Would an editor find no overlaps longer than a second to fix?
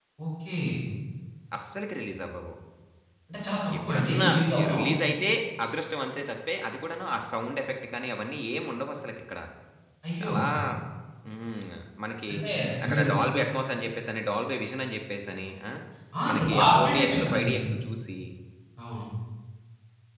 No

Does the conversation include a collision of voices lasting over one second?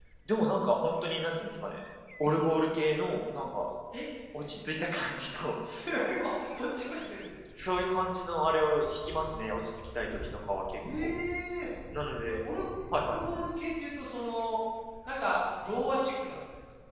No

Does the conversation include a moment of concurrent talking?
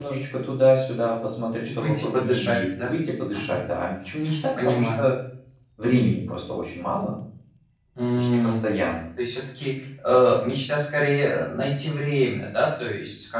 Yes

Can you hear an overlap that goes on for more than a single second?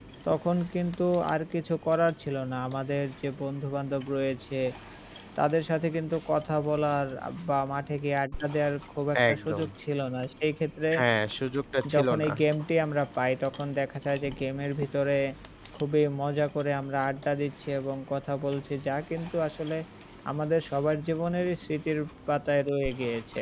No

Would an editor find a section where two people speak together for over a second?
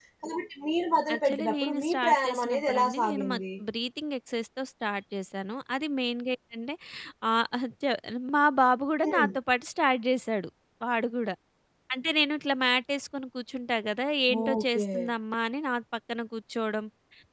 Yes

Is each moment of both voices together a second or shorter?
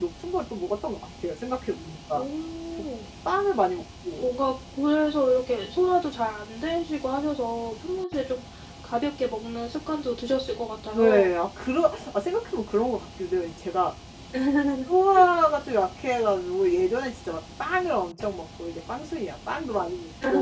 Yes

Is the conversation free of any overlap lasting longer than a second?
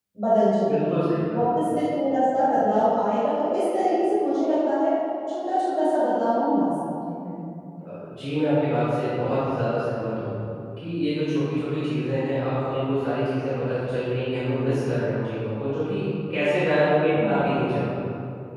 Yes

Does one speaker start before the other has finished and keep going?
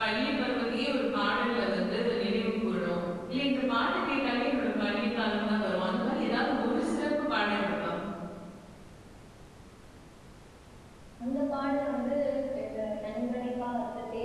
No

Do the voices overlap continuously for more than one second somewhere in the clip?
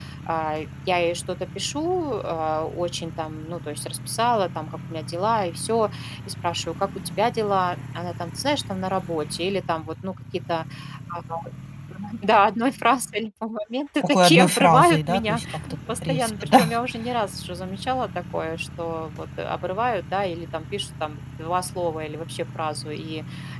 Yes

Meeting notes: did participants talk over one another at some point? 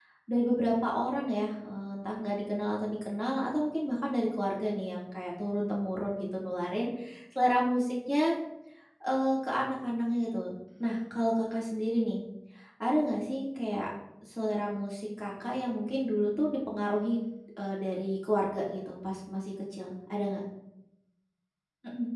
No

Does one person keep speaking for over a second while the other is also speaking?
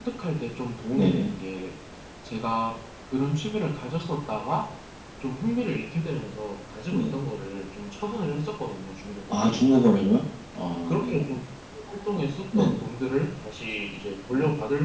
No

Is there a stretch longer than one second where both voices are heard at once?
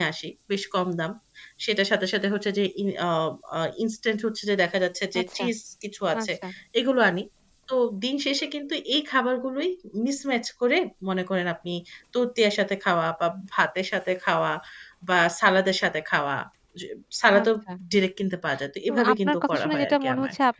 Yes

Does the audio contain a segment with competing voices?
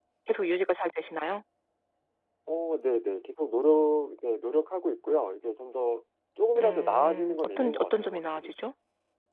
Yes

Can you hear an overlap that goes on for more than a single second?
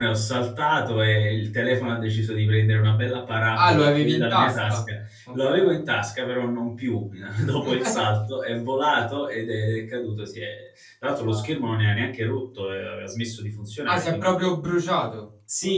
Yes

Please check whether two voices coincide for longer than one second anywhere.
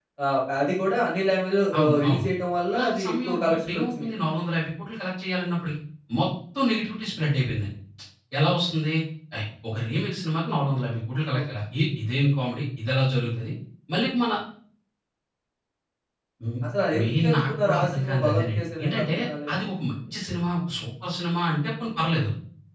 Yes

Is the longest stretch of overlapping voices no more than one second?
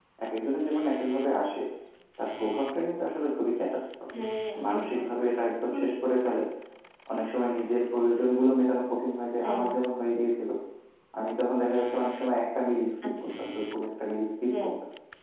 Yes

